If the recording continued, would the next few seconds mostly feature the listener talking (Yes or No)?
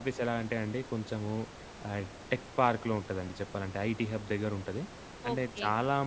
No